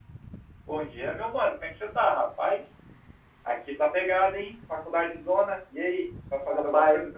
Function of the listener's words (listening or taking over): taking over